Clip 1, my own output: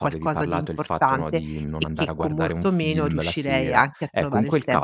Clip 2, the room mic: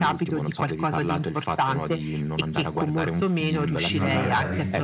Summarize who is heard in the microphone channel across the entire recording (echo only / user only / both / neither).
both